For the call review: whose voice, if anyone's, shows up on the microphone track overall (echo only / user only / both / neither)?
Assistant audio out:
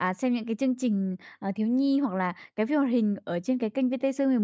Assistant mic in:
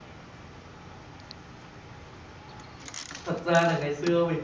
user only